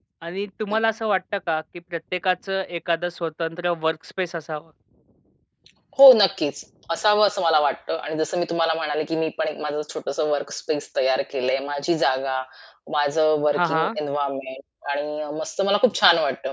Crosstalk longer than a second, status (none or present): none